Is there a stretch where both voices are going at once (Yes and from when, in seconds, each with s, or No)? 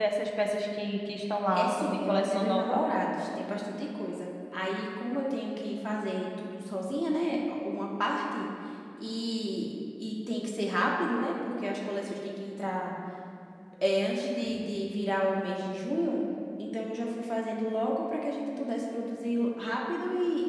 Yes, from 1.5 s